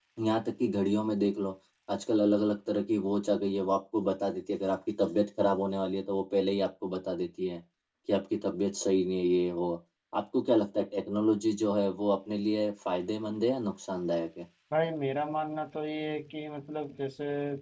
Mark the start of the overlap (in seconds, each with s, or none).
none